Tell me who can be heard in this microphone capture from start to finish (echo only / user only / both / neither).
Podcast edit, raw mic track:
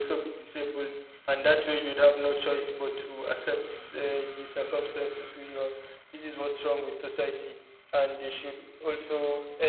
echo only